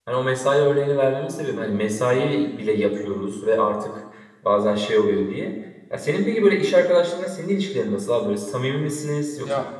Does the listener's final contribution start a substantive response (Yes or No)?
Yes